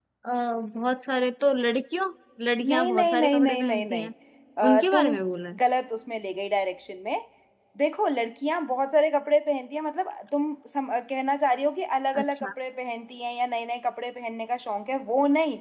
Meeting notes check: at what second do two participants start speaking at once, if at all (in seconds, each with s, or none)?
2.7 s